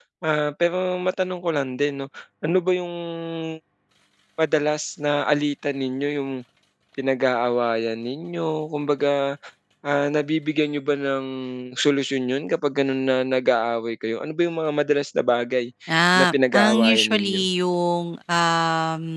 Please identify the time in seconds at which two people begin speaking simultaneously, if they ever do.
16.2 s

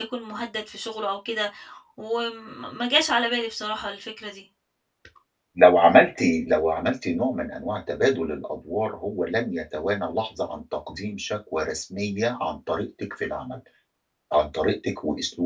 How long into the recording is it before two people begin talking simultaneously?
none

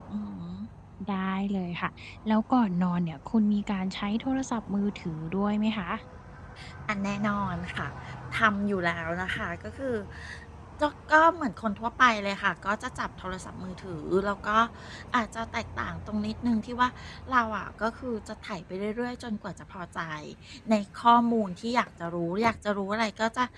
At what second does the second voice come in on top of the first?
none

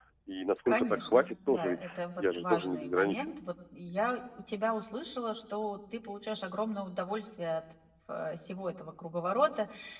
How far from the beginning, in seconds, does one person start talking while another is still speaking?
0.7 s

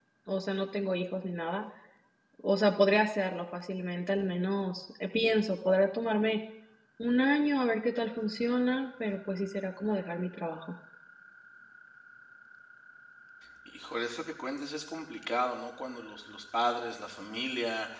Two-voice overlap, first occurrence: none

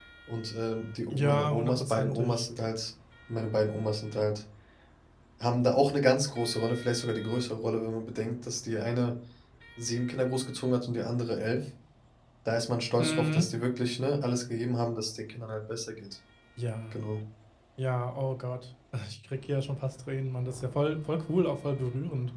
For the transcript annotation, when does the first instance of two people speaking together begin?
1.1 s

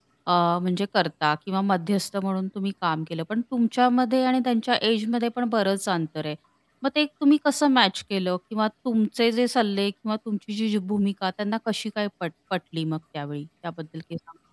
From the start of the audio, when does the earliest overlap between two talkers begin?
none

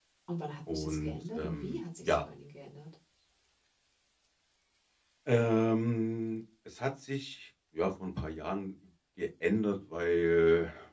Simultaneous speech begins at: 0.7 s

